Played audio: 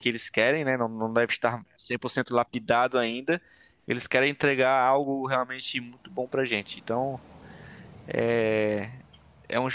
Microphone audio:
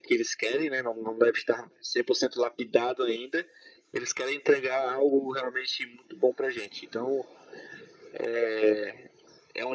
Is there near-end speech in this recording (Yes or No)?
No